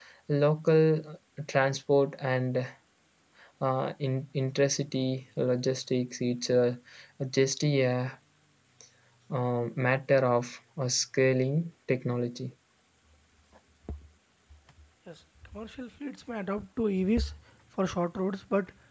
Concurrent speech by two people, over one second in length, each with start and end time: none

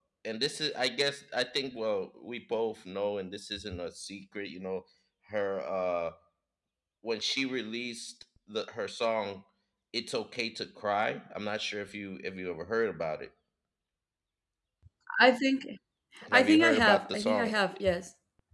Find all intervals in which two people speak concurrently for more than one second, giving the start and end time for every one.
16.3-17.6

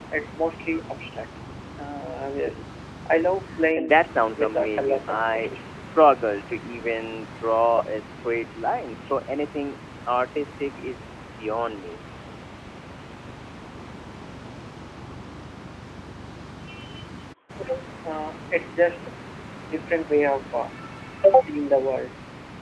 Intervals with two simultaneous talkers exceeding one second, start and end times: 3.8-5.6

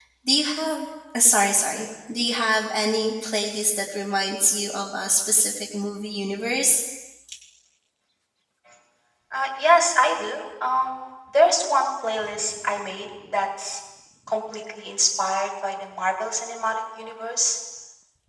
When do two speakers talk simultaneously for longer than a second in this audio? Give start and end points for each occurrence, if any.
none

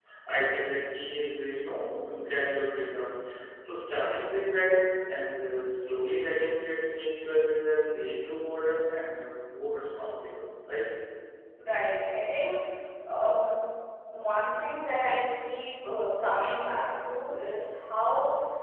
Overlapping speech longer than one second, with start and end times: none

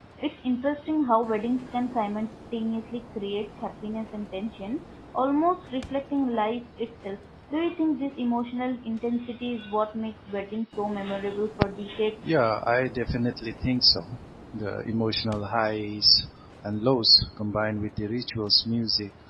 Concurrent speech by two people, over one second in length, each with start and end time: none

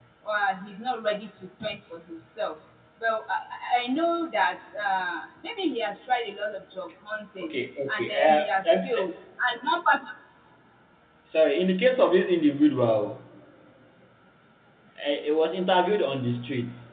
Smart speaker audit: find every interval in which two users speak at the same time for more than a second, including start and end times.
7.9-9.1

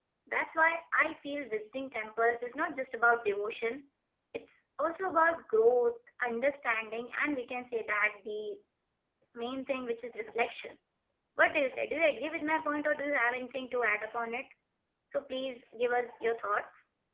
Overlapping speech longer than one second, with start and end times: none

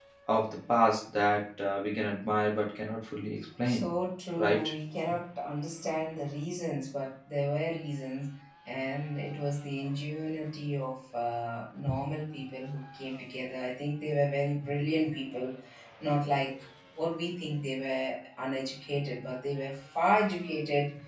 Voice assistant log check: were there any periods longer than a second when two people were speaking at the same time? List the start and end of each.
none

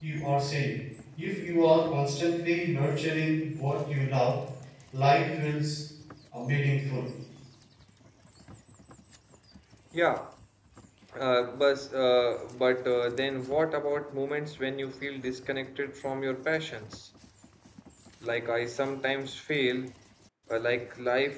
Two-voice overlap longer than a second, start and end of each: none

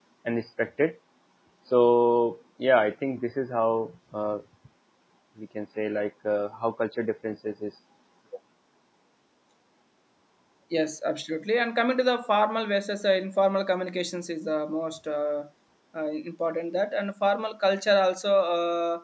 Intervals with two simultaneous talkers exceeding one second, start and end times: none

